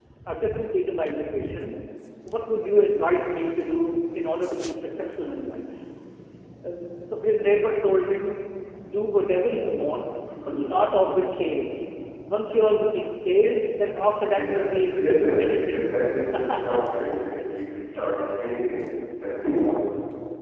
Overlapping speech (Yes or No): Yes